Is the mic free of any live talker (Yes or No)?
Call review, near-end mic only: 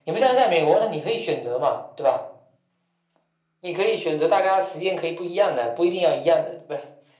Yes